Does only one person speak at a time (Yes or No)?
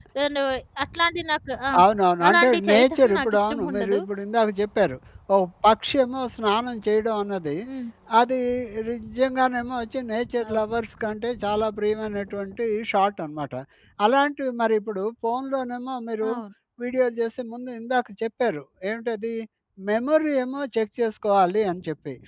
No